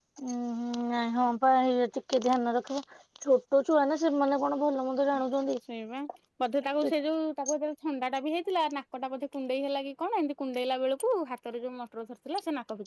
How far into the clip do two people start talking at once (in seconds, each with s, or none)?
none